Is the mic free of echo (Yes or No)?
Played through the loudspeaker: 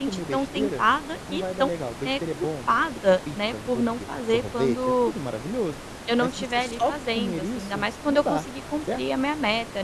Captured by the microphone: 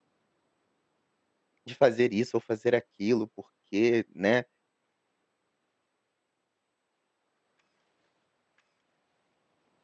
Yes